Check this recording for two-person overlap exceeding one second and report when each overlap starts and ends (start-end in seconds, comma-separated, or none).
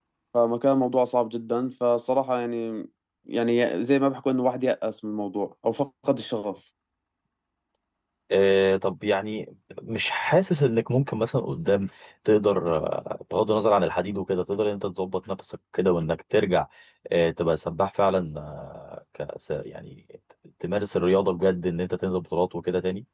none